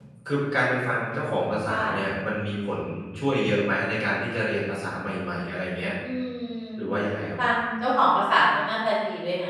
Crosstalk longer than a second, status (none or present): none